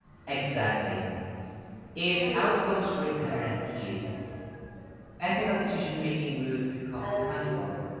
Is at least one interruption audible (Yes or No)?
Yes